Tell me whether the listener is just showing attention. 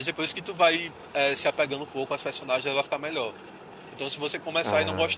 Yes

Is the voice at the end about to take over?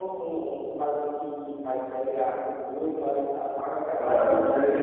Yes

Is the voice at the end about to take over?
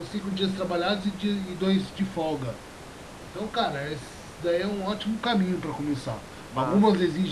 No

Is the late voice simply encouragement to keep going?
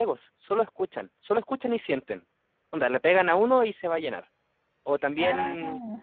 Yes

